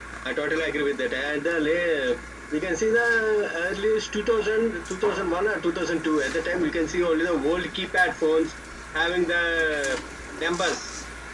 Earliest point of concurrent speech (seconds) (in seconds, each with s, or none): none